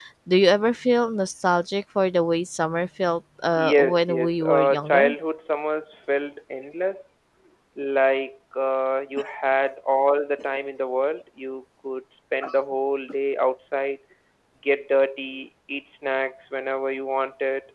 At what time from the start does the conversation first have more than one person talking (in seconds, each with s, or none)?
3.5 s